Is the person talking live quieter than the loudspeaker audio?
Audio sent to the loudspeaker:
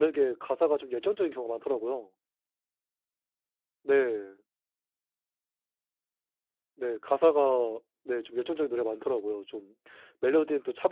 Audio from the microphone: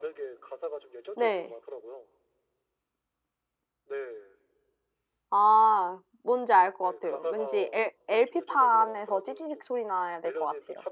No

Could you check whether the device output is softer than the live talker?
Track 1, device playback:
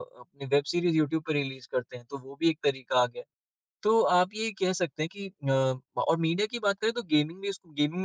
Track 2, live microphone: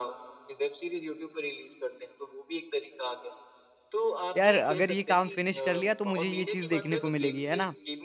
Yes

